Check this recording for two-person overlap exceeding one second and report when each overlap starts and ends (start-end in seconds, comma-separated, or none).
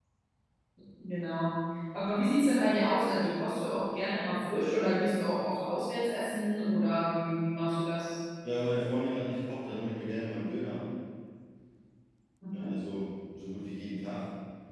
none